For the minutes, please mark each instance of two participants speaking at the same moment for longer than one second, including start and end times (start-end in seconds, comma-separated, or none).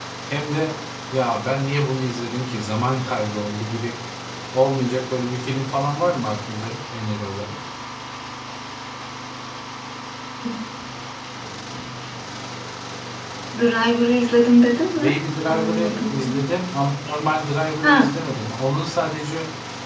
15.0-16.4